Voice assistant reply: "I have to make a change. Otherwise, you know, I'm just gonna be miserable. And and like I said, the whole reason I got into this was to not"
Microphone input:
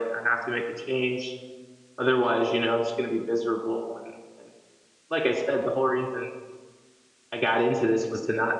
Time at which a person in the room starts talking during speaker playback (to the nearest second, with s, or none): none